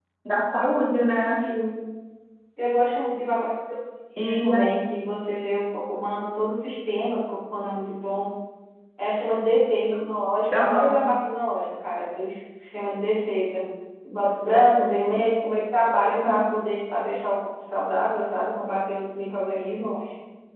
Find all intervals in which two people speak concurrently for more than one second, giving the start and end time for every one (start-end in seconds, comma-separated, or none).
none